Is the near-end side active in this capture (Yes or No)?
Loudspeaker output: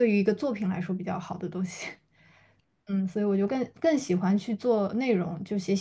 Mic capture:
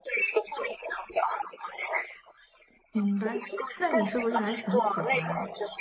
Yes